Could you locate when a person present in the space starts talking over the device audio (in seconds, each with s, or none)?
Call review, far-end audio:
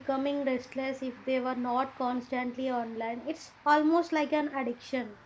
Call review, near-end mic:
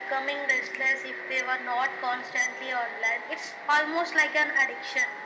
none